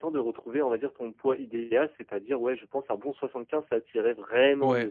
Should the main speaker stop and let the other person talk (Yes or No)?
Yes